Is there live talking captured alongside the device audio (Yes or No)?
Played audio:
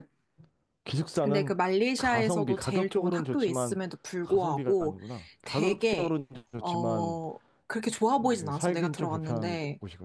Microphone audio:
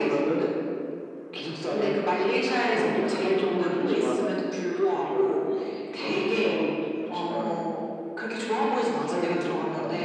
No